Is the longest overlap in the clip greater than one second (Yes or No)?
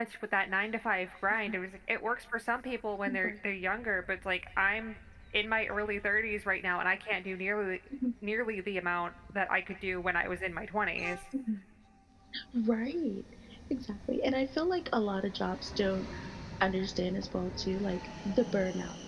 No